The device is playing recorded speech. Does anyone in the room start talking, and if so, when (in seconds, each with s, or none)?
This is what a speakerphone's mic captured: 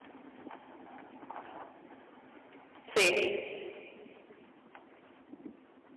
2.8 s